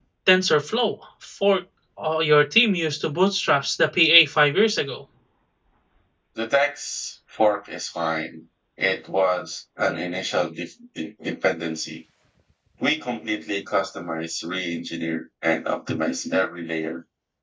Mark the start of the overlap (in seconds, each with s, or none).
none